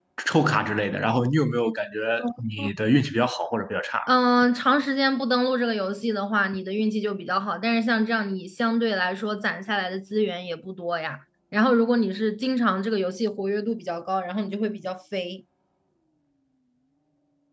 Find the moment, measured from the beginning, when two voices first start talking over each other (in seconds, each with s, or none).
none